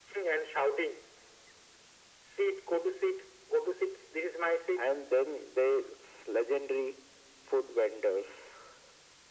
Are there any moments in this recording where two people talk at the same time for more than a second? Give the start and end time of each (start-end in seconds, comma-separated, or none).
none